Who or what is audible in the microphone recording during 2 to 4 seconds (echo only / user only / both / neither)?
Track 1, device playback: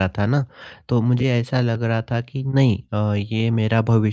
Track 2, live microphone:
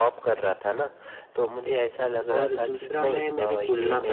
both